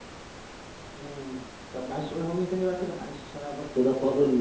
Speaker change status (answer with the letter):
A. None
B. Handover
B